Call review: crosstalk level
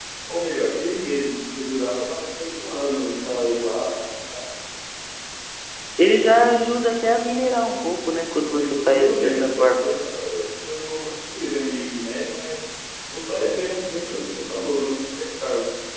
present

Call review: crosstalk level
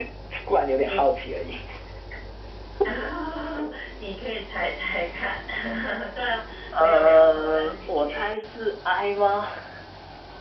present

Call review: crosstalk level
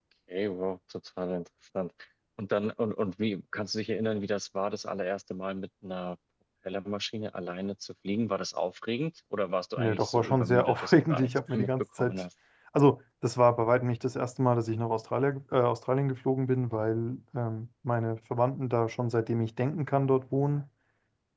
present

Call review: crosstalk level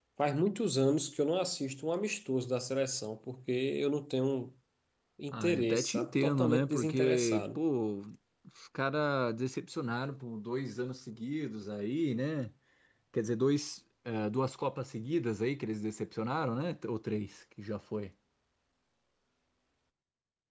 present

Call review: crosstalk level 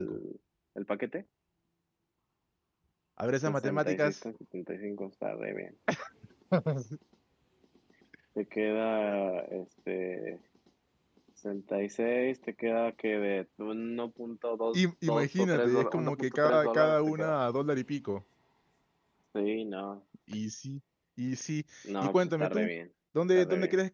present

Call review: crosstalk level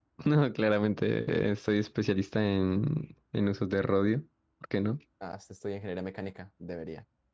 none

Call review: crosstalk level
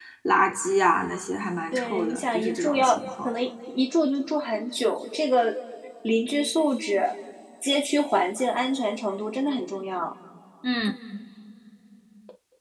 present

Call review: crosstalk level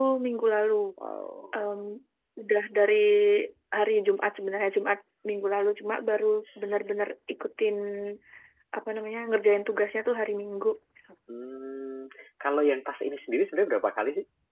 none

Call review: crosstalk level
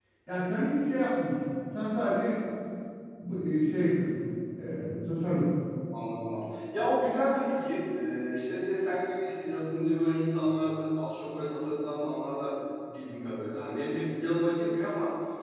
none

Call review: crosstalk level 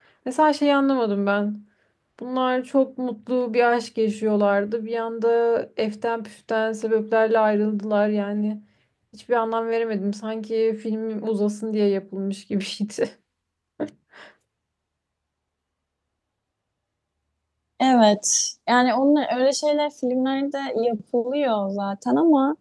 none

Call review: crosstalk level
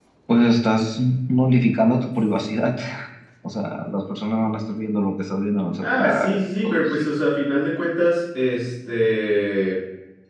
present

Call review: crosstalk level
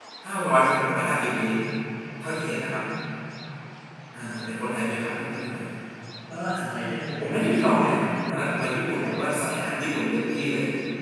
present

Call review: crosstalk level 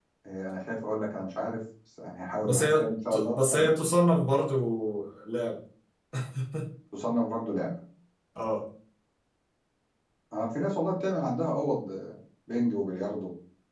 present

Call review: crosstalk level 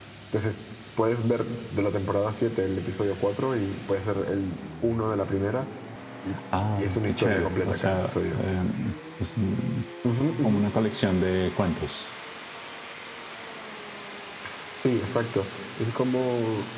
present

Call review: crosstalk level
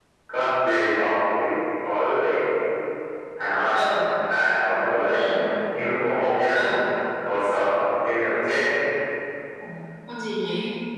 none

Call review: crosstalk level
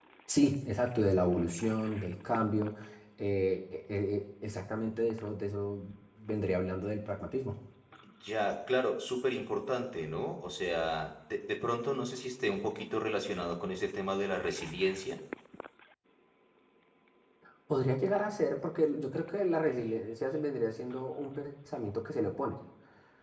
none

